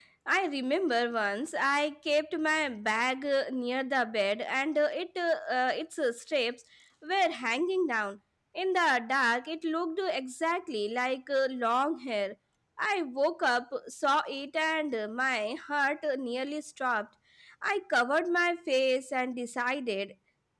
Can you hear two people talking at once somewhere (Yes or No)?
No